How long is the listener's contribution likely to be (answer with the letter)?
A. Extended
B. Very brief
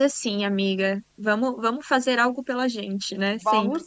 A